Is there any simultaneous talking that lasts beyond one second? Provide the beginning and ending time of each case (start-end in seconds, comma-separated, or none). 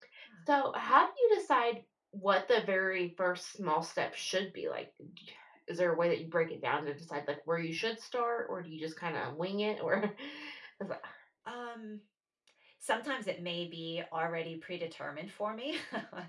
none